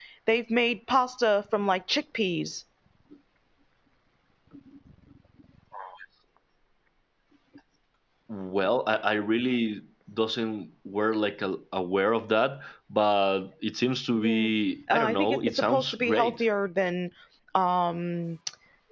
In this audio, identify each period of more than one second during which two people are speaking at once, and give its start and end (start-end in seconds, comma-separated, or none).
14.9-16.4